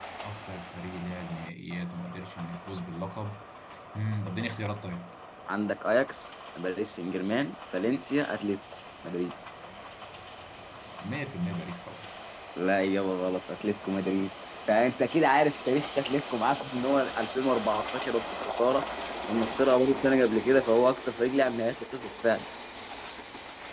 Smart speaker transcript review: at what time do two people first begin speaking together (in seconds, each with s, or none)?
none